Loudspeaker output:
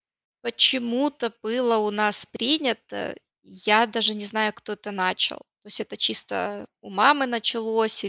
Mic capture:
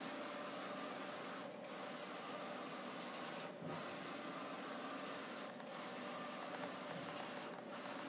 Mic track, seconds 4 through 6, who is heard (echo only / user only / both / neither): neither